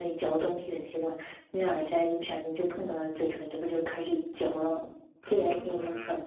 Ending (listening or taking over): taking over